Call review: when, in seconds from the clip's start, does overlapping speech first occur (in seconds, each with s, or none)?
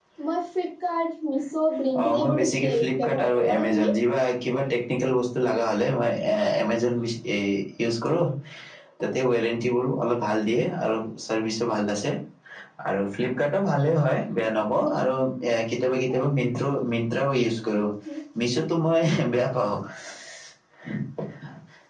1.9 s